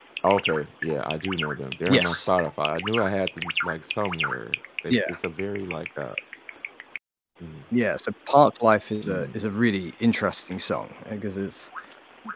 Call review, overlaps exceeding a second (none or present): none